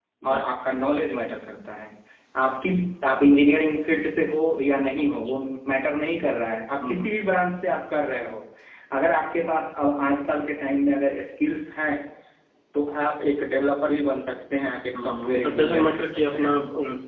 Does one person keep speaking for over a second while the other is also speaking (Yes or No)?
Yes